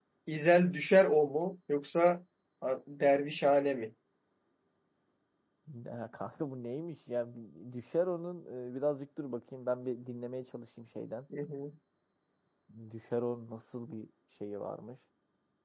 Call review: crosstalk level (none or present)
none